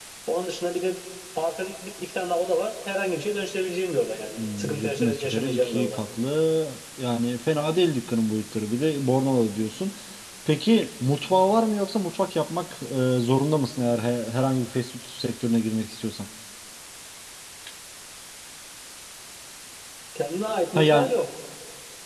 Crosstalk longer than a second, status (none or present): present